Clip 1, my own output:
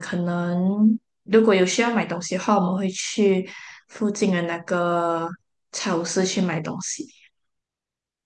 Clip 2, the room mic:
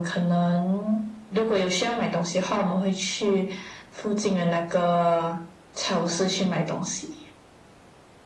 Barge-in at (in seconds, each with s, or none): none